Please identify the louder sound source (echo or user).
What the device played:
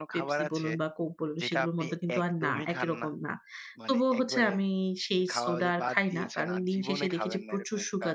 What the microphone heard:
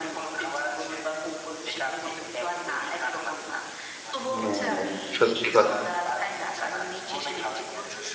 user